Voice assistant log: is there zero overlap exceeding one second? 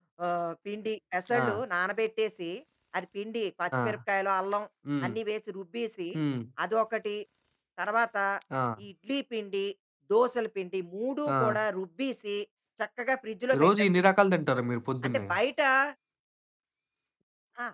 Yes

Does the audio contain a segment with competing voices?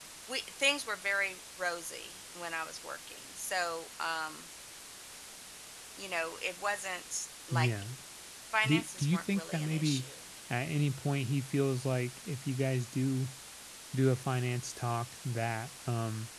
Yes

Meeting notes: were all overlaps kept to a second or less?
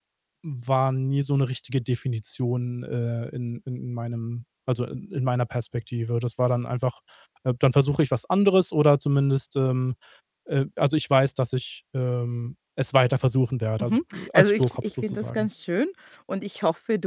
No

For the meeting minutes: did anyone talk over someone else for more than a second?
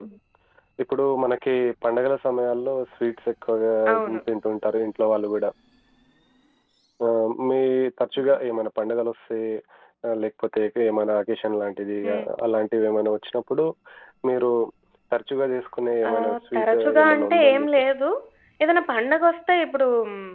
Yes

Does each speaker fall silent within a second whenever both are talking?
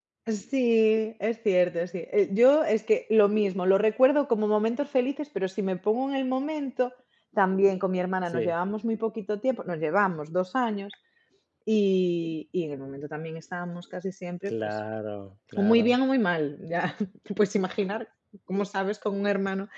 Yes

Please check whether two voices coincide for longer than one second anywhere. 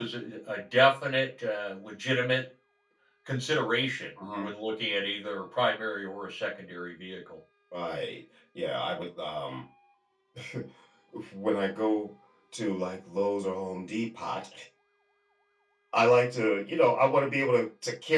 No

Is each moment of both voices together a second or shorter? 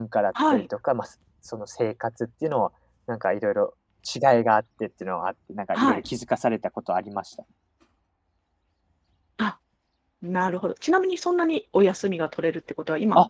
Yes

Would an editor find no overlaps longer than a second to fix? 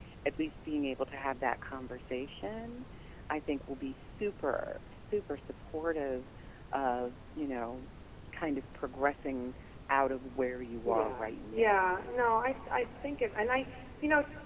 No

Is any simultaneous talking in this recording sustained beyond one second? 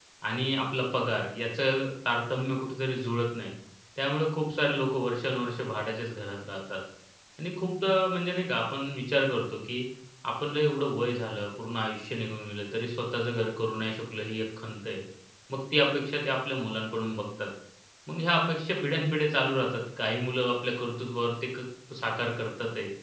No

